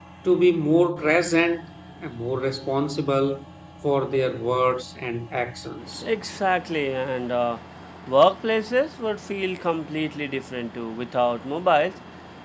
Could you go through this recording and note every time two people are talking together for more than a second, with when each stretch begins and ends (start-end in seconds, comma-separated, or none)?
none